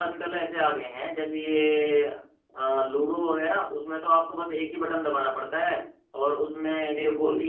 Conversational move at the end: listening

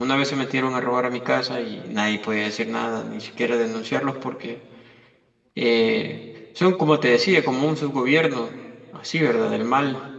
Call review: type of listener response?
listening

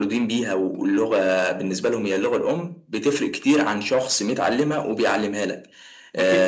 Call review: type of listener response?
listening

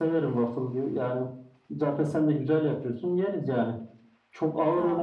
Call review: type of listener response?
listening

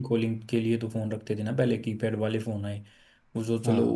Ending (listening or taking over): listening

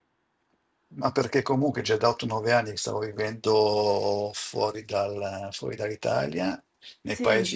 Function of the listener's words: listening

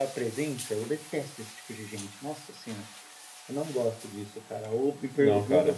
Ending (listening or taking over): listening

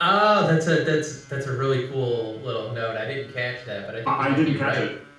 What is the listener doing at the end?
taking over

